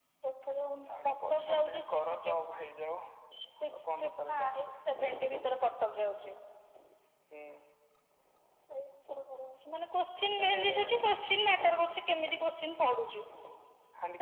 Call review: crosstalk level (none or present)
present